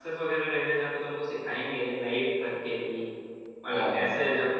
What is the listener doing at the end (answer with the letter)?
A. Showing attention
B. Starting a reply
A